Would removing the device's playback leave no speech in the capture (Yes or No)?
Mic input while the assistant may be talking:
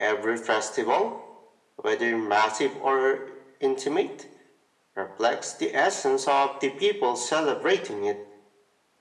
Yes